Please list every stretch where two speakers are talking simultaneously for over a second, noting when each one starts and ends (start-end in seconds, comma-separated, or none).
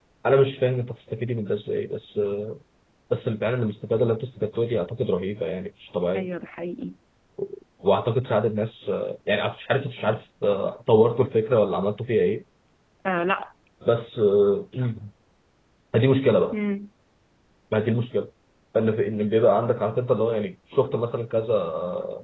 none